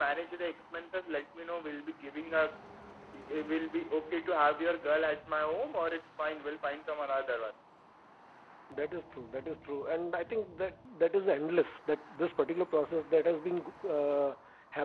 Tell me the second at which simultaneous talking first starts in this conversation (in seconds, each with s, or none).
none